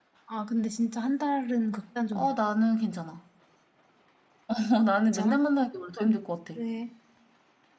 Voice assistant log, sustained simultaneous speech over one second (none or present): none